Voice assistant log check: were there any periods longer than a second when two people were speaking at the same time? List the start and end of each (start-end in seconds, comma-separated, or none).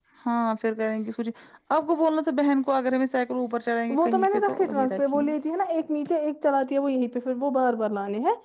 4.0-5.3